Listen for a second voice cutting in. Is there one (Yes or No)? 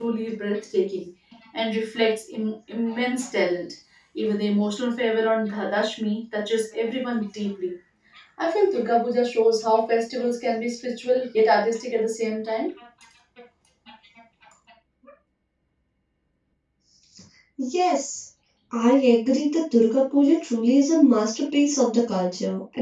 No